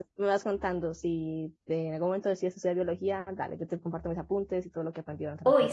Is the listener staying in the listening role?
No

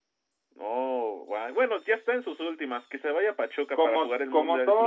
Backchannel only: No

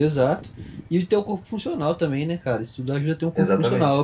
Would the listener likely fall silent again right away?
Yes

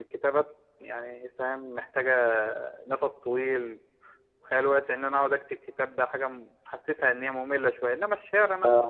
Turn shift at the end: Yes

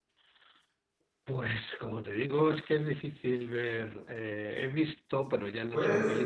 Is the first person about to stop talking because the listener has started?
No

